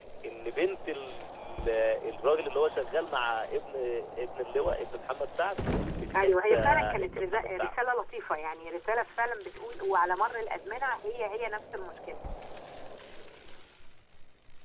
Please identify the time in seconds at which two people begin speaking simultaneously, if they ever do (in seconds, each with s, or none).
6.2 s